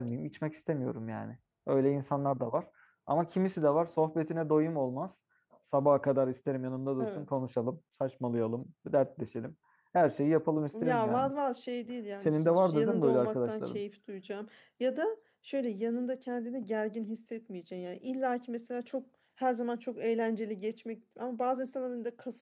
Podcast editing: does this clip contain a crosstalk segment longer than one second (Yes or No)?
Yes